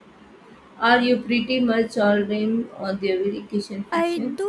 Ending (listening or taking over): taking over